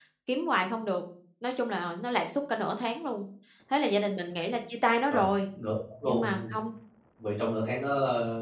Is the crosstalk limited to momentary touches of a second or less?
Yes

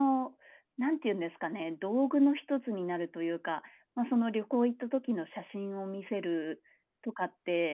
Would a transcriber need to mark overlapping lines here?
No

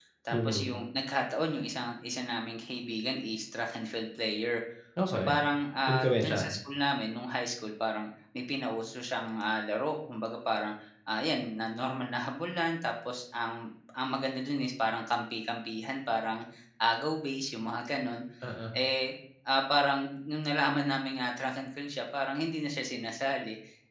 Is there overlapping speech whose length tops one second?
No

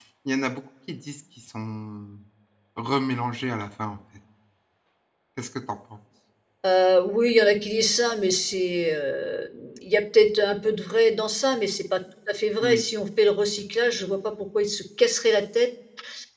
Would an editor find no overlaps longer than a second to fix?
Yes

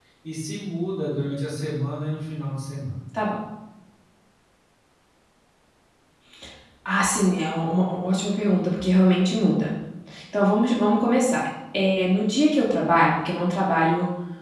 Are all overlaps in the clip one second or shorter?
Yes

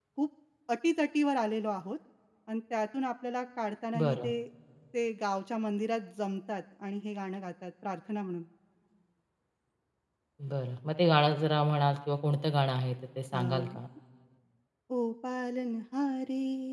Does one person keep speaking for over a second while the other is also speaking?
No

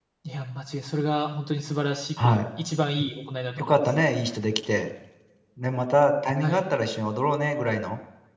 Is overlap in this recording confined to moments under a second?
Yes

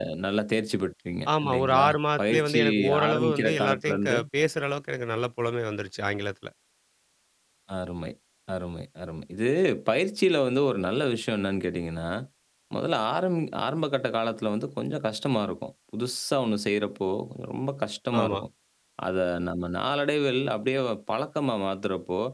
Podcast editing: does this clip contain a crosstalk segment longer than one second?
Yes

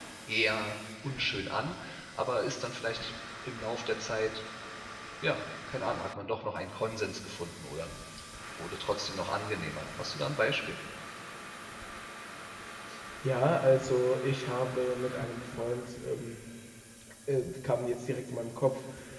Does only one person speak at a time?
Yes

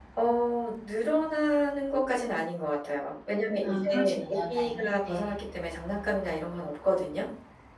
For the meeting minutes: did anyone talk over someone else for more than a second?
Yes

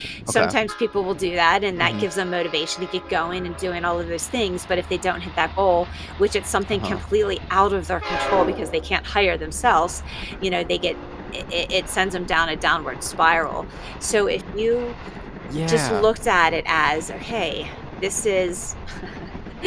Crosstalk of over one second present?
No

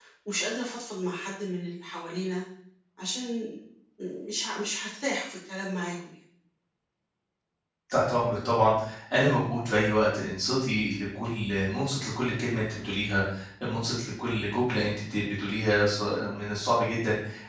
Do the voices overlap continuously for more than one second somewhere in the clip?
No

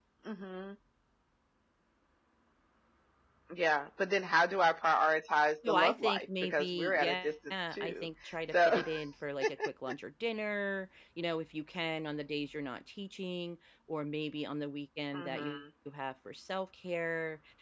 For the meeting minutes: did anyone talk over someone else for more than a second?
Yes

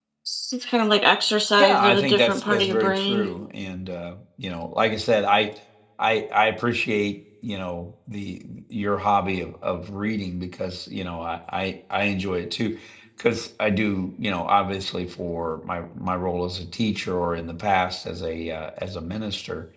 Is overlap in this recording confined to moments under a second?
No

